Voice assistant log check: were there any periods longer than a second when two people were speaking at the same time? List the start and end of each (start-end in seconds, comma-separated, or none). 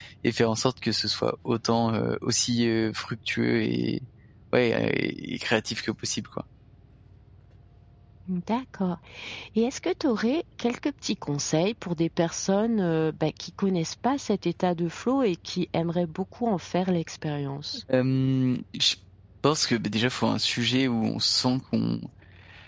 none